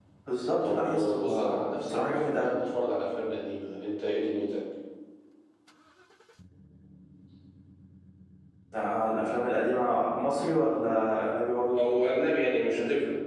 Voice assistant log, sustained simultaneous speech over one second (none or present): present